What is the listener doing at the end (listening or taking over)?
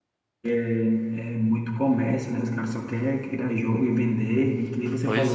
listening